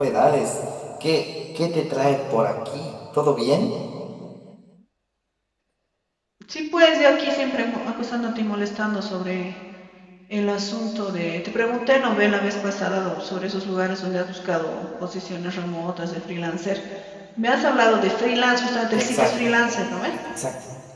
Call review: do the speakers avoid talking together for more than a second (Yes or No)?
Yes